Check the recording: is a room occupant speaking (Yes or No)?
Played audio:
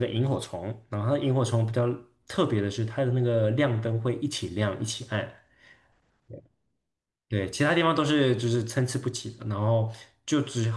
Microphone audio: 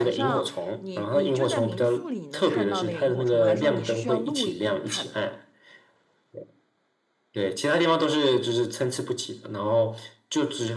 Yes